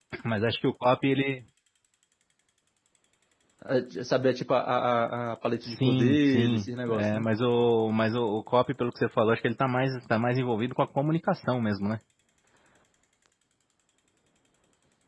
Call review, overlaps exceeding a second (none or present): present